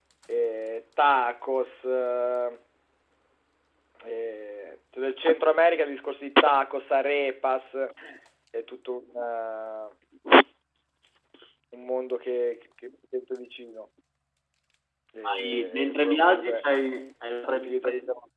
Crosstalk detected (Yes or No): Yes